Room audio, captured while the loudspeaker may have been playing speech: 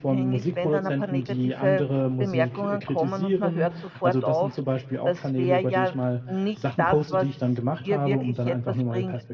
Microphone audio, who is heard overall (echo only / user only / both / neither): both